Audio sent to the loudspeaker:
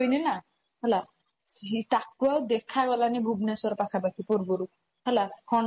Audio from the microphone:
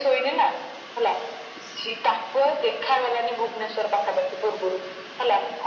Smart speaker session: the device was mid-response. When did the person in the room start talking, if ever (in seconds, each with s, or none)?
none